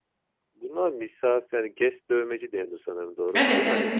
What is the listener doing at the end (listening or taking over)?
taking over